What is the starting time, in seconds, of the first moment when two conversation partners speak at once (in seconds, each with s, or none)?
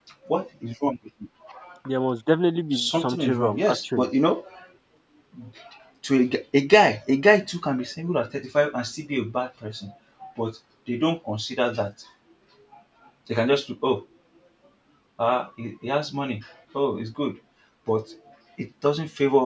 2.7 s